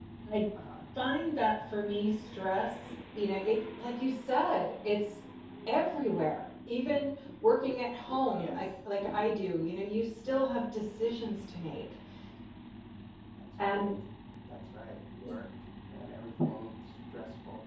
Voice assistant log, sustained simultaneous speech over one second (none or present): none